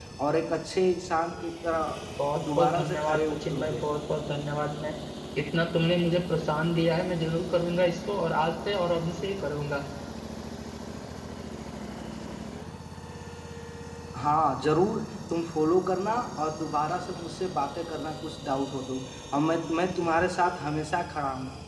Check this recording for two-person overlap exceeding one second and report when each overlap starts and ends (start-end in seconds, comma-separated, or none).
2.6-3.8